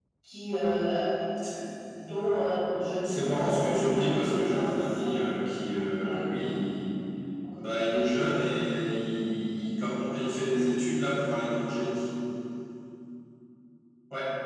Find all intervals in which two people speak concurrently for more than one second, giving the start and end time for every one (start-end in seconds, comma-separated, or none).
3.0-5.3